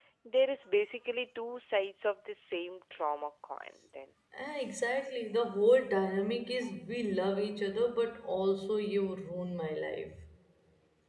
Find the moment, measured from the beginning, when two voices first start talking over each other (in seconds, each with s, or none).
none